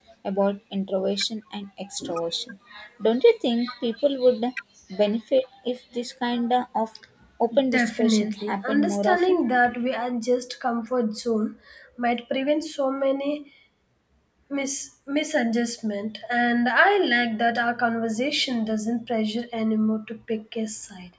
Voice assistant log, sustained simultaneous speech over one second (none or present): present